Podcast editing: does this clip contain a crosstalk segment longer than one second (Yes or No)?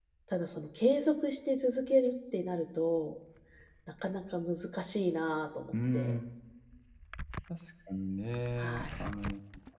No